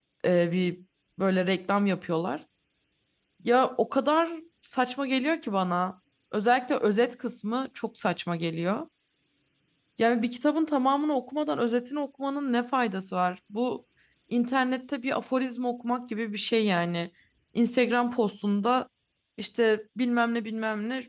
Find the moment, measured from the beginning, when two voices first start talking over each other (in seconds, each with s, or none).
none